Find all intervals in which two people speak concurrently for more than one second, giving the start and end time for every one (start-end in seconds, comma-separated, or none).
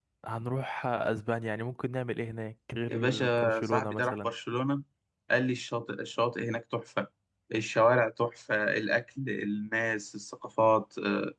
2.9-4.3